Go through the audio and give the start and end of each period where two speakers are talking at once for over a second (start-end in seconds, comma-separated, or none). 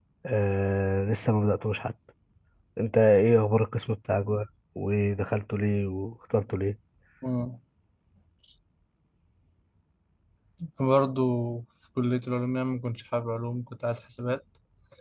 none